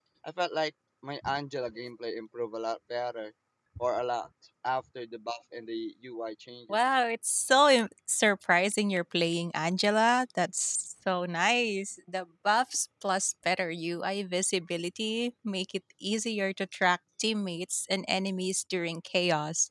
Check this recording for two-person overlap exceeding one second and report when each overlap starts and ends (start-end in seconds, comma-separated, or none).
none